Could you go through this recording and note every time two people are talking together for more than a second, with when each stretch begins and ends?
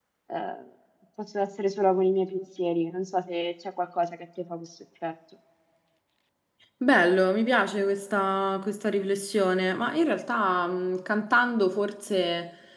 none

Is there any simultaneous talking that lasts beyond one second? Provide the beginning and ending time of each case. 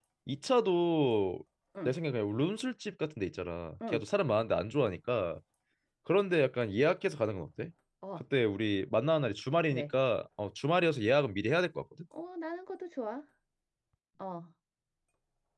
none

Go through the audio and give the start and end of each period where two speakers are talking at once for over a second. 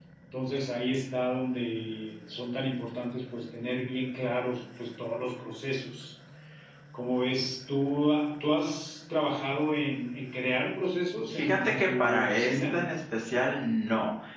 11.3-12.8

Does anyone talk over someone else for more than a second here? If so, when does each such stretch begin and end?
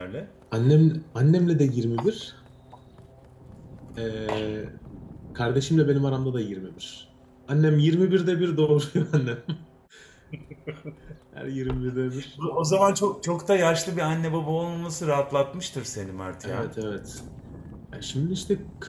none

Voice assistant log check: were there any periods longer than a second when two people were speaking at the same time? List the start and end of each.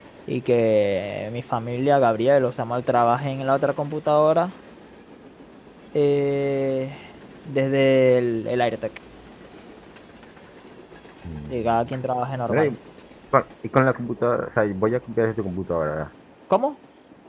none

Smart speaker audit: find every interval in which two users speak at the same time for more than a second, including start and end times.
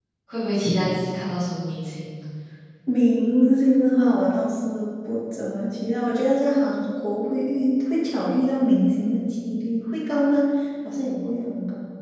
none

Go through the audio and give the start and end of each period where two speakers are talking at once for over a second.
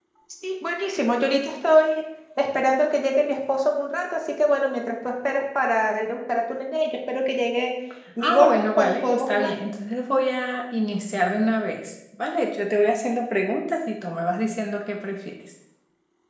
8.2-9.6

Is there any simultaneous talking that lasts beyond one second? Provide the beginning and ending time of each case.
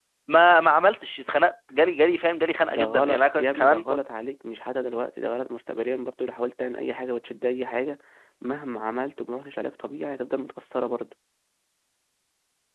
2.7-4.0

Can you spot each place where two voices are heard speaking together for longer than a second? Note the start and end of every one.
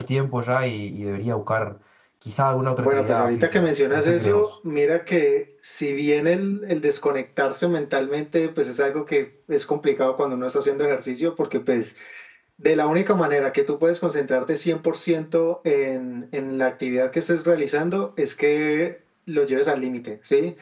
2.8-4.4

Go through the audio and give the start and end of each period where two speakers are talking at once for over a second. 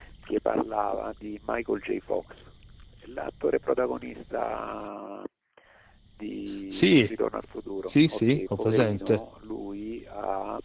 7.9-9.2

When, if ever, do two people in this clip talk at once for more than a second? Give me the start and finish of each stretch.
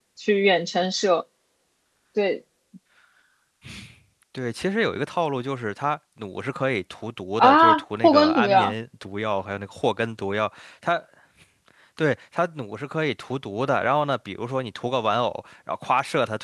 7.4-8.7

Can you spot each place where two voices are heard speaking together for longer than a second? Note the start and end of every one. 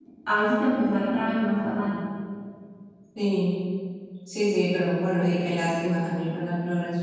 none

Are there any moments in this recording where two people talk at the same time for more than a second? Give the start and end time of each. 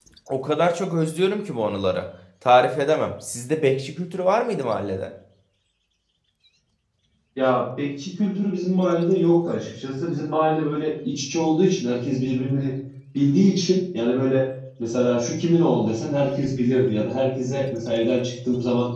none

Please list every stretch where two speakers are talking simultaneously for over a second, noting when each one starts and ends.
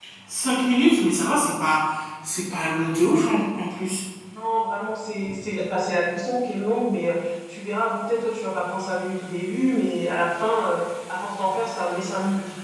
none

